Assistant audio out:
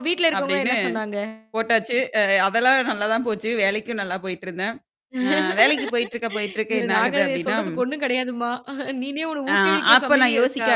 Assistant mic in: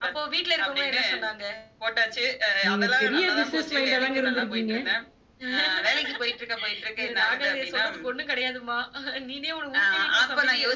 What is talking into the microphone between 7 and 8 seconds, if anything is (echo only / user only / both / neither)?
echo only